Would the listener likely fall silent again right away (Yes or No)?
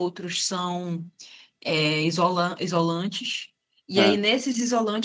Yes